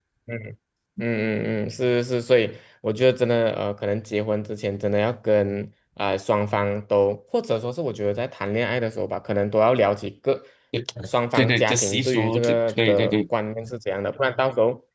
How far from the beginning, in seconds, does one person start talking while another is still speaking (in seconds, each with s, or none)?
11.3 s